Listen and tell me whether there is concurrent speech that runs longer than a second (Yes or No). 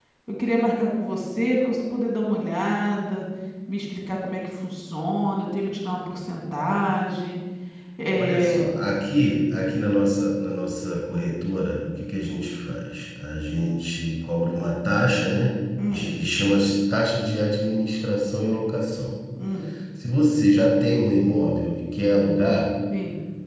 No